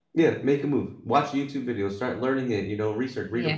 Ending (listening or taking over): listening